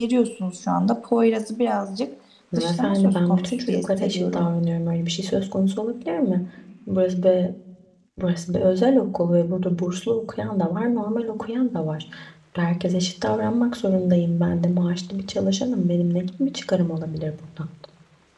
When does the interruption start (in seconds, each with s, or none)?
2.6 s